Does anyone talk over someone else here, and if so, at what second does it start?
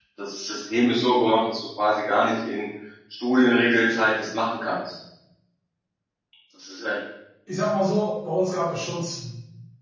none

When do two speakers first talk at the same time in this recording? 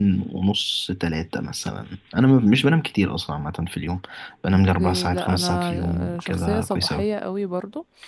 5 s

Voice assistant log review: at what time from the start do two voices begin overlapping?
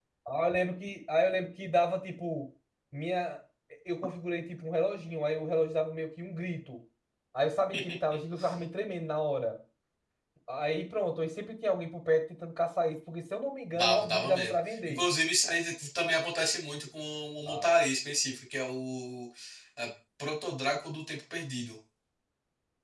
14 s

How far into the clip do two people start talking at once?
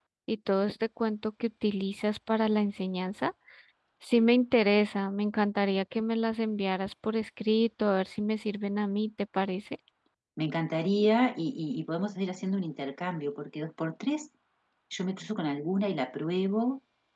none

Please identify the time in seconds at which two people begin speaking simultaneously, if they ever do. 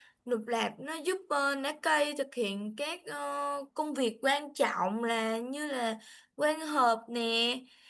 none

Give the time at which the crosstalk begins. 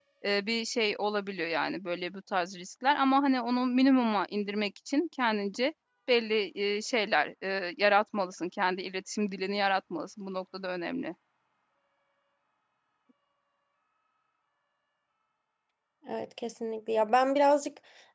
none

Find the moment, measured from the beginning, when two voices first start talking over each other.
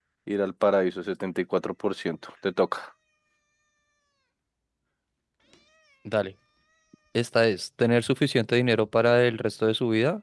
none

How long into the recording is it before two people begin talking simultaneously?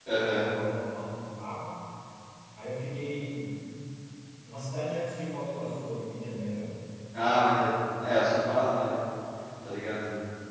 none

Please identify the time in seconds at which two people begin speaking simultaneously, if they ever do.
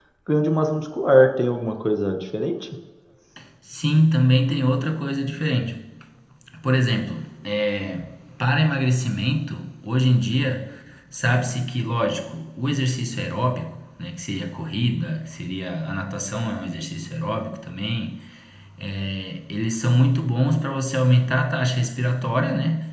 none

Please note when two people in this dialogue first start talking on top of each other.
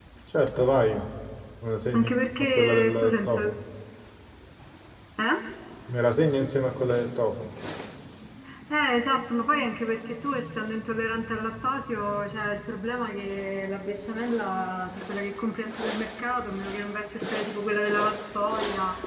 2 s

